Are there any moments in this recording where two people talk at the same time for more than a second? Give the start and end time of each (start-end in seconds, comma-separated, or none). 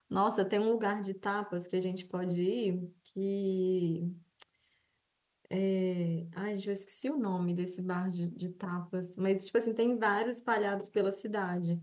none